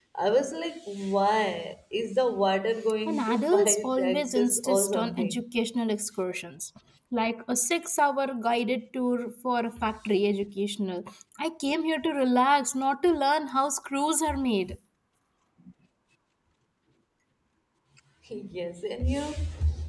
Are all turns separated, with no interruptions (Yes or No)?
No